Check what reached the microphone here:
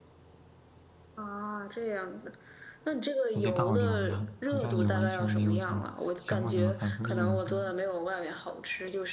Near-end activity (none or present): present